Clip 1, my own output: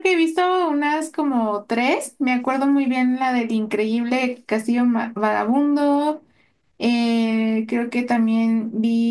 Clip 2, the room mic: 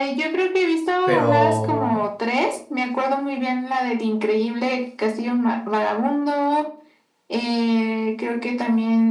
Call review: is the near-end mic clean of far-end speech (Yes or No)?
No